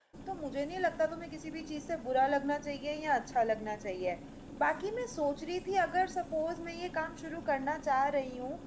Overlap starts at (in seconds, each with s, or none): none